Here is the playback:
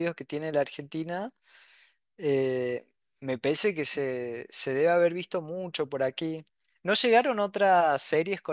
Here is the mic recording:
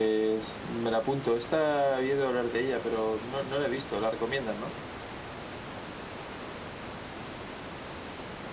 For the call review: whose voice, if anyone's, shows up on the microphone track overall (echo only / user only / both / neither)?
user only